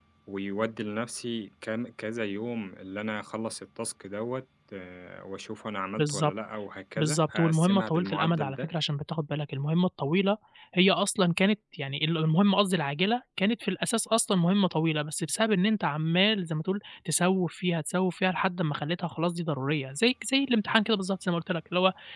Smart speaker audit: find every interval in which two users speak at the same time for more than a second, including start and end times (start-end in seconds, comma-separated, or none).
7.0-8.7